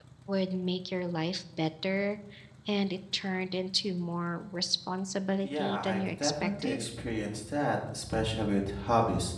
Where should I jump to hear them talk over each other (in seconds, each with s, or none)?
5.4 s